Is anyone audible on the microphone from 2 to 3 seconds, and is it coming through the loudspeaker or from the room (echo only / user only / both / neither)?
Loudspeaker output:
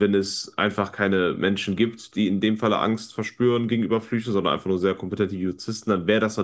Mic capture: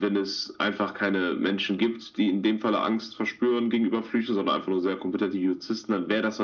echo only